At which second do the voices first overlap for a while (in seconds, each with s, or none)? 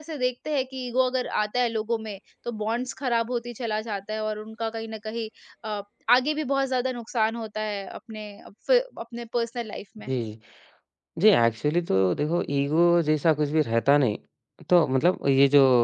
none